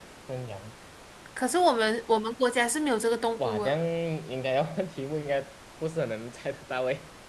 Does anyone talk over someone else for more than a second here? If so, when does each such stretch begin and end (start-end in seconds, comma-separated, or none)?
none